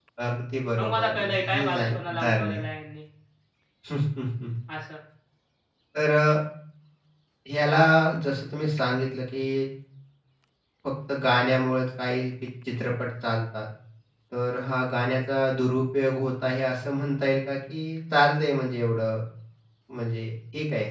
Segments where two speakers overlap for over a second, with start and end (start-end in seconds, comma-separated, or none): 0.8-2.6